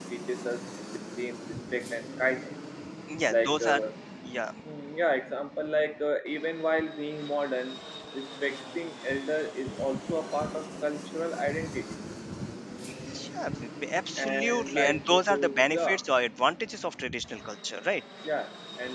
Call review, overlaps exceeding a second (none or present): present